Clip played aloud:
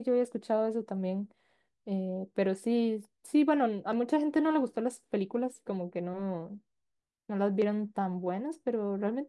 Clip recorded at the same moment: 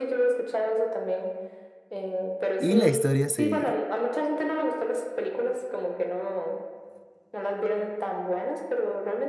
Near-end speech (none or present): present